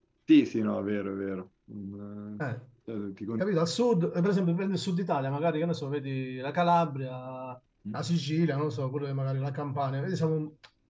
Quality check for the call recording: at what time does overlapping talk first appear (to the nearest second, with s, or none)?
none